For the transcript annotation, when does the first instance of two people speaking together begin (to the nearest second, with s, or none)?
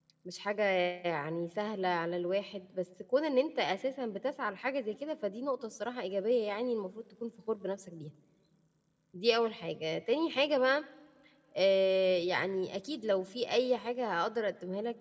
none